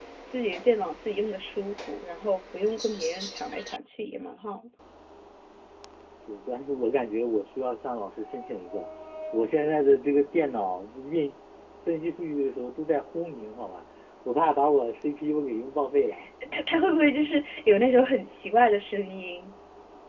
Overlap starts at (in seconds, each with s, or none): none